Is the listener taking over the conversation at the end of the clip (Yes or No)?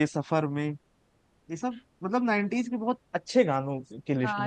Yes